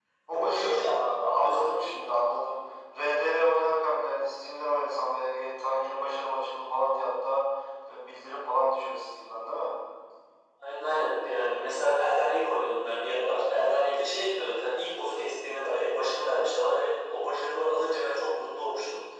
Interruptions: present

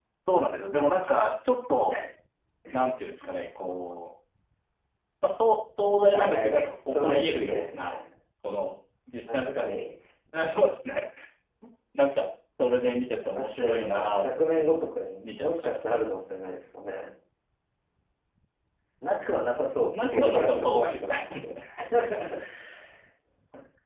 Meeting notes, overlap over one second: present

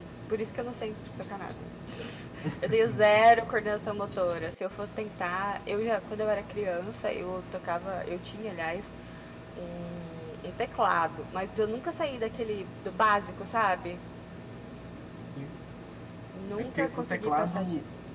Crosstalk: present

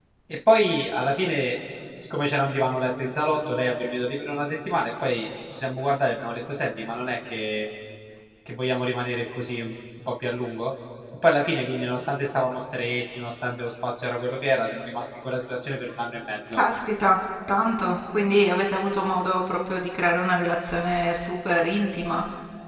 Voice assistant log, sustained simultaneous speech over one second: none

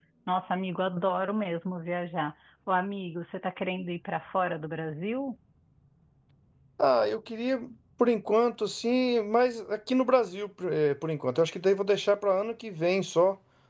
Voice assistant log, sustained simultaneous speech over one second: none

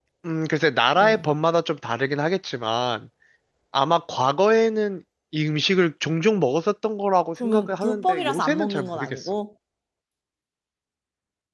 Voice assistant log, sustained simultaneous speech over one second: present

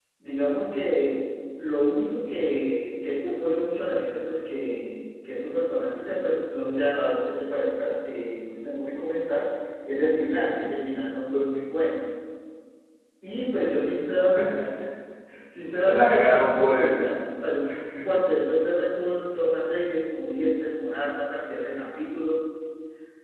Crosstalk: present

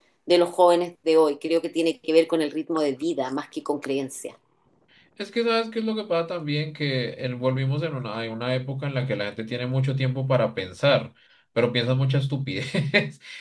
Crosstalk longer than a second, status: none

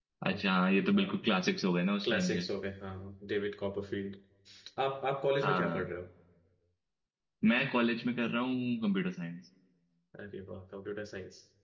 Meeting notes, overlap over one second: none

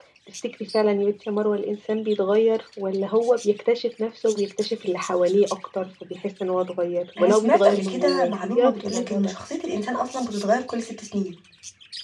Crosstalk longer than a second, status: present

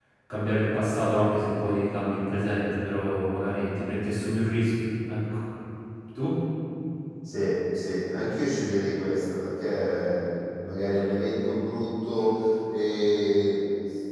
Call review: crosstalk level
none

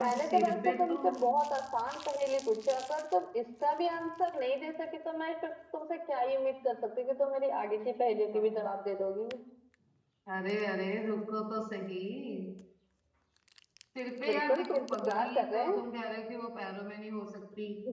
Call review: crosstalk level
present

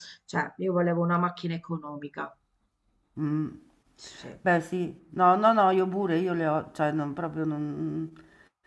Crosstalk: none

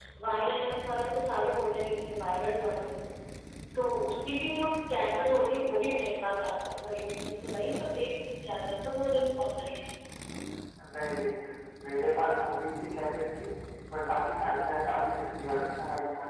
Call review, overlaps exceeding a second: none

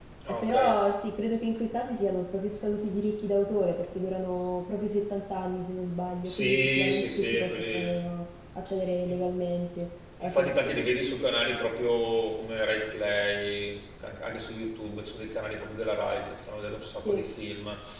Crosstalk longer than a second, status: present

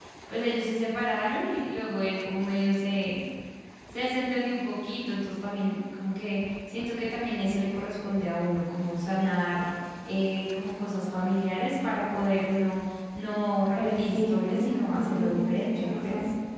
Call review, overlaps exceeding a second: present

